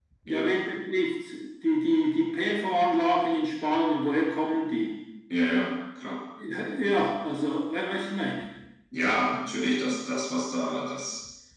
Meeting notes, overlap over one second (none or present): none